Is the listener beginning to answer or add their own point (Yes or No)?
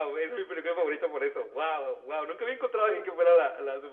No